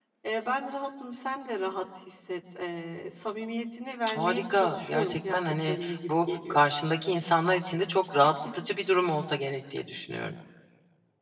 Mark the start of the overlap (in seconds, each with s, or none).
4.1 s